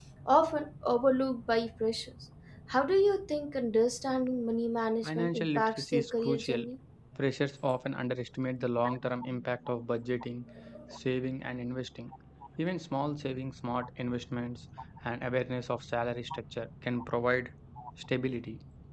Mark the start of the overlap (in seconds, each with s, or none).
5.0 s